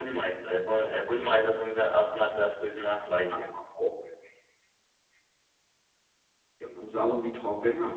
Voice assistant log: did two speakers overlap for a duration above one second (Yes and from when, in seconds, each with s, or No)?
No